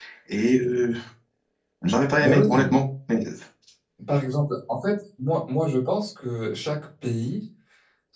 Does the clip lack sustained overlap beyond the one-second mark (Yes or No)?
Yes